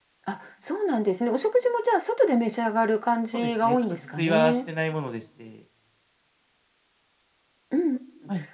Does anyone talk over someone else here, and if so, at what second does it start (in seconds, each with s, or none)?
3.3 s